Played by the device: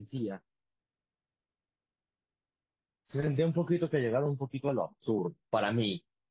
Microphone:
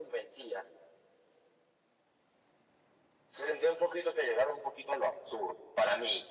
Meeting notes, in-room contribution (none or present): none